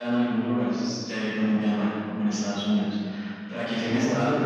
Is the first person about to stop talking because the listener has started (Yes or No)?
Yes